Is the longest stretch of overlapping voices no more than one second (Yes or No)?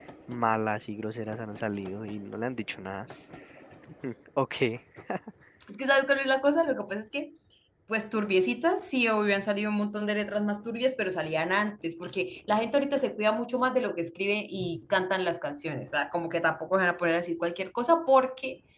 Yes